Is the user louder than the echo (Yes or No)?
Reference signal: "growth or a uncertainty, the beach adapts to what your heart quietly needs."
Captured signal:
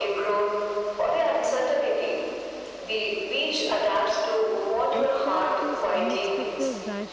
No